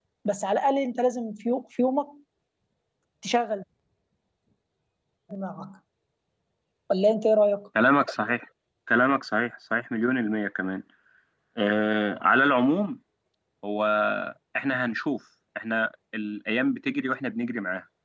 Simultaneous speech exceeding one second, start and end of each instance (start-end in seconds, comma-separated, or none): none